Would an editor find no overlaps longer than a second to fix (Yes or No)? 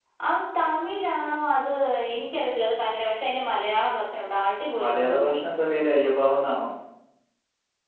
Yes